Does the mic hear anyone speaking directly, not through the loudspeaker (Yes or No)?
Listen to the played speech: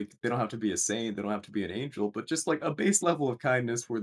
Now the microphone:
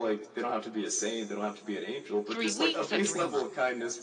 Yes